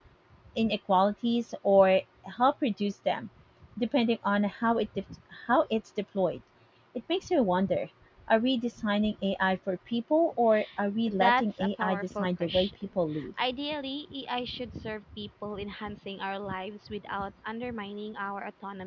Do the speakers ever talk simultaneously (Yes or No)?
Yes